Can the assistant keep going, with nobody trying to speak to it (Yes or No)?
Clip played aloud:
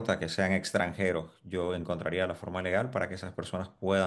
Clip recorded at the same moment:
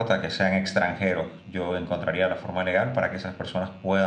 Yes